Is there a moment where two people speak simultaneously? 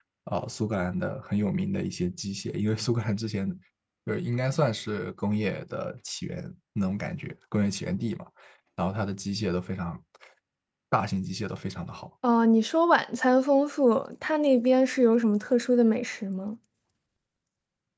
No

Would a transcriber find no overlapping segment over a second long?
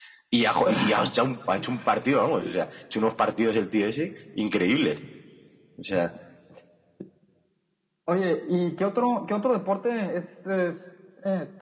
Yes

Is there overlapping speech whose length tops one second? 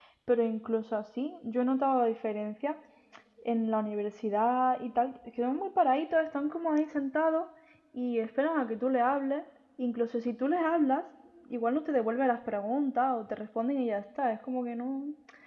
No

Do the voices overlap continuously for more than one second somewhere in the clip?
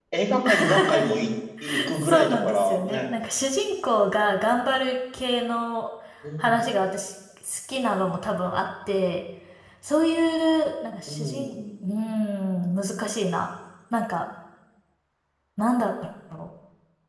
Yes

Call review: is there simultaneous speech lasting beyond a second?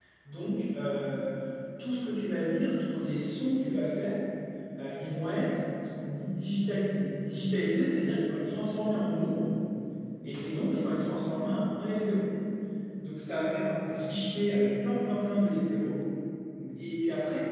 No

